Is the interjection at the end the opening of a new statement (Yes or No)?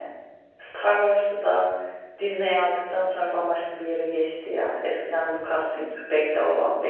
No